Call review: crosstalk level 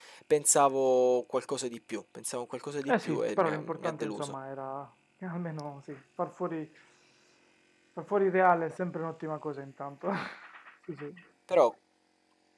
present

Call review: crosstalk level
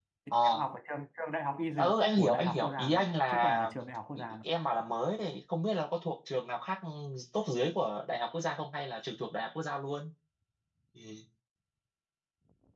present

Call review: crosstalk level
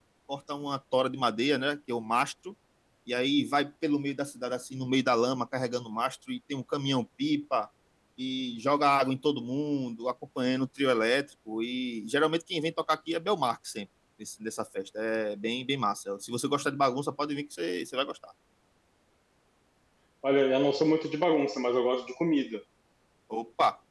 none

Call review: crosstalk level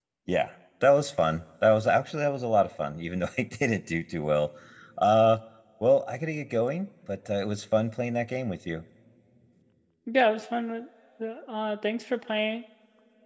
none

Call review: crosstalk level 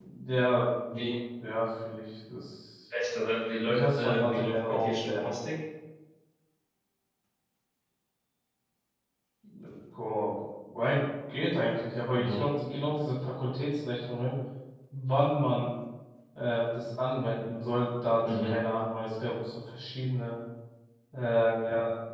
present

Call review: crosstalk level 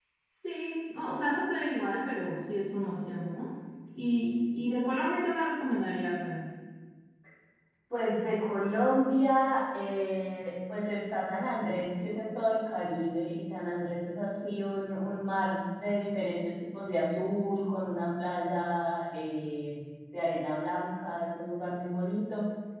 none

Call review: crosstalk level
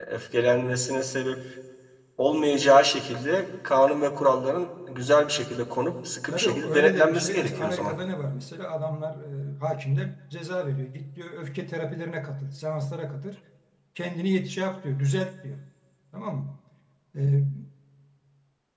present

